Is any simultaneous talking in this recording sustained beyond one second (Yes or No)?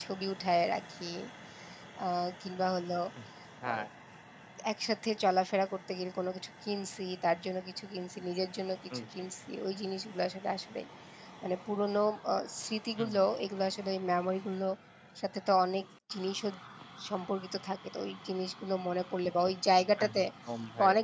No